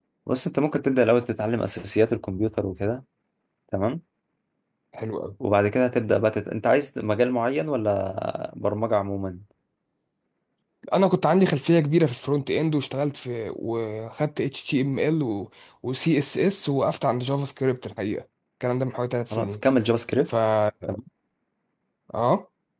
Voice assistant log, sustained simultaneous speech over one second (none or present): none